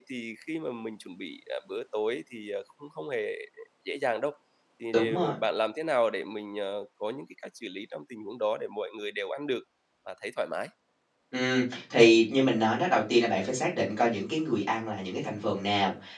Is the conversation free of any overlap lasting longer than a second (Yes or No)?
Yes